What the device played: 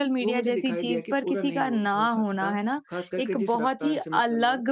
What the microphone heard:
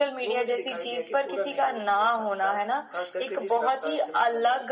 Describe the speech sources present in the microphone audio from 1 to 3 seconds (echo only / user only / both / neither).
echo only